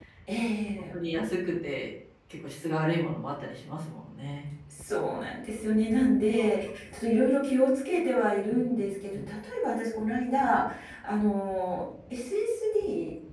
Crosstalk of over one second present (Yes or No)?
No